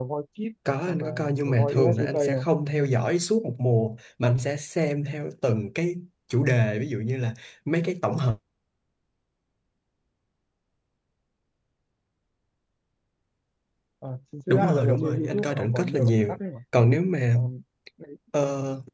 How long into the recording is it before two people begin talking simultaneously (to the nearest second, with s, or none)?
1 s